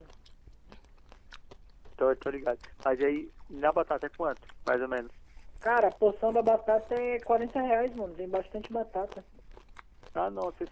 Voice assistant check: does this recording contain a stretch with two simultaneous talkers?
No

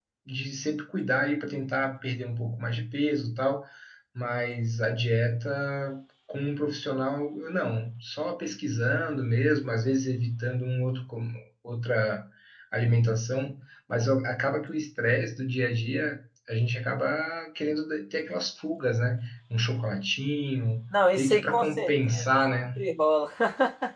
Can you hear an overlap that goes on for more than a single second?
Yes, from 20.9 s

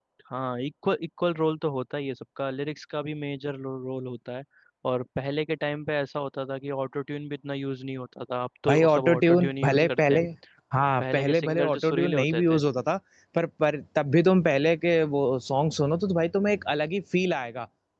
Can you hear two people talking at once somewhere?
Yes, from 8.7 s

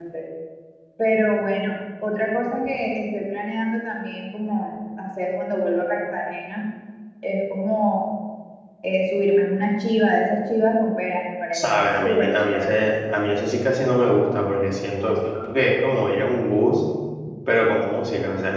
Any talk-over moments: Yes, from 11.5 s

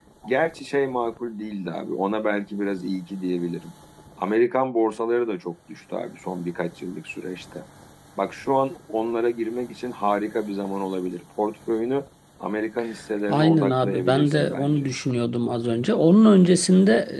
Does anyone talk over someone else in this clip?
Yes, from 13.3 s

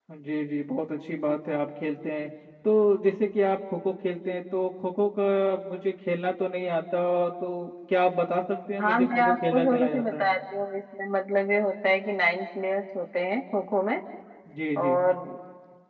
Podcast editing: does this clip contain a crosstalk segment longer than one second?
Yes, from 8.8 s

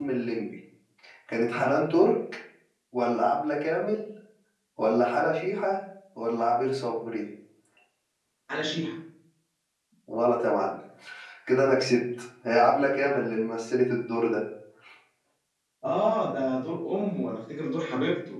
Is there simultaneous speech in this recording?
No

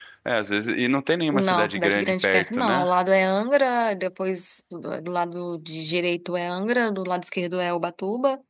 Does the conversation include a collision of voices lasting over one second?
Yes, from 1.3 s

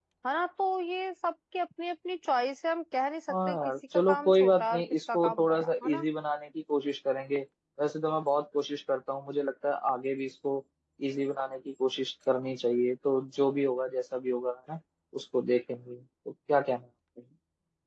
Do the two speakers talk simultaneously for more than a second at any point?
Yes, from 3.3 s

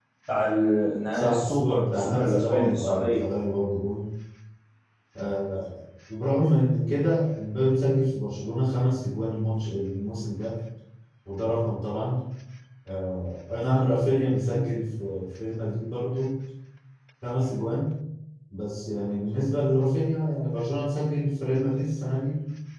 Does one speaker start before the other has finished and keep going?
Yes, from 1.1 s

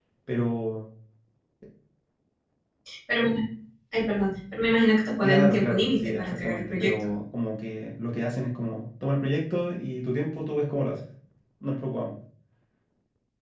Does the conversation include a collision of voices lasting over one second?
Yes, from 5.2 s

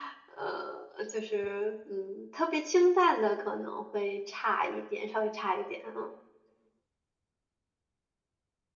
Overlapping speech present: No

